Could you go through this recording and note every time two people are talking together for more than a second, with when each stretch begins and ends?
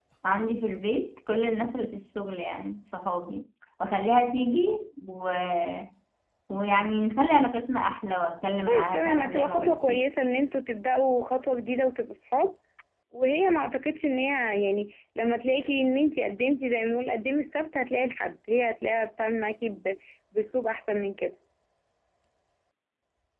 8.7-10.0

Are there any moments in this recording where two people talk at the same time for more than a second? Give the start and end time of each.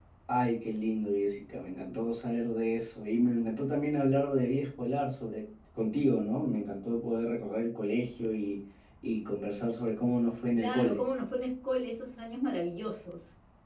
none

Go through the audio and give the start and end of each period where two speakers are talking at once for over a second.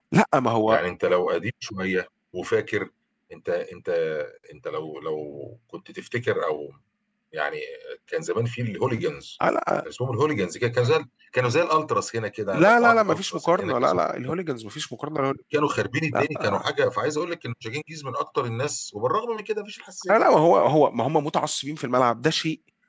12.5-14.0

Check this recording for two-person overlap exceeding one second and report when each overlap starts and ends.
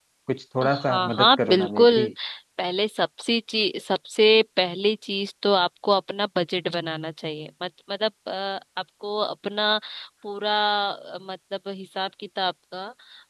0.7-2.1

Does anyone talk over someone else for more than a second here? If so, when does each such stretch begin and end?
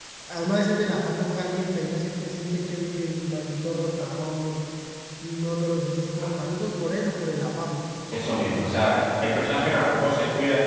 none

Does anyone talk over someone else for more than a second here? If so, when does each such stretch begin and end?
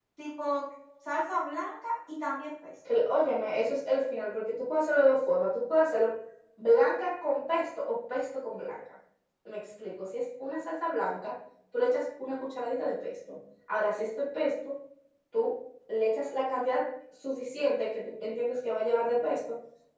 none

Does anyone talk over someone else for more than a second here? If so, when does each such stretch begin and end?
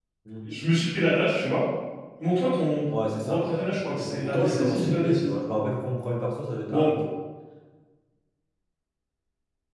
3.2-5.3

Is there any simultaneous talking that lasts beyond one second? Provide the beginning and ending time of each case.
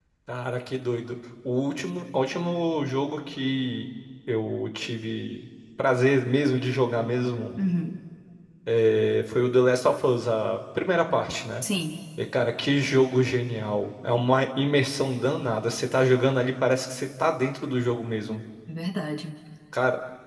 none

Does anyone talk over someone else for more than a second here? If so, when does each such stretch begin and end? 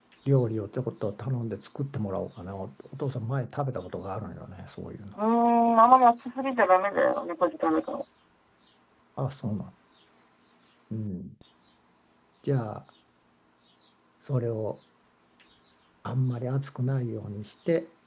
none

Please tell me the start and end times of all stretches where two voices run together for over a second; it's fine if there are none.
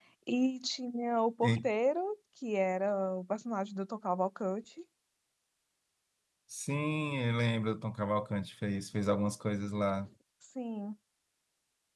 none

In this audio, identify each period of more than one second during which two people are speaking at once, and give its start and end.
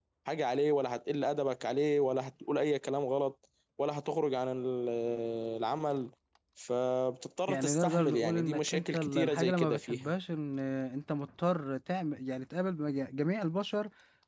7.5-10.1

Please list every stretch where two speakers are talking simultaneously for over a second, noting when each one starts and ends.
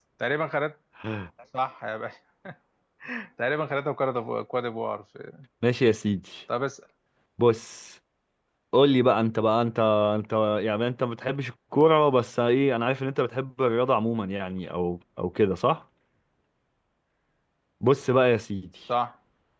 none

